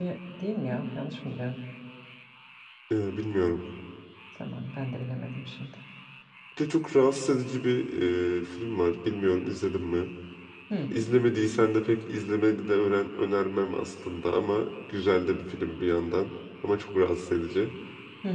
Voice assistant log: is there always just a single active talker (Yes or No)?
Yes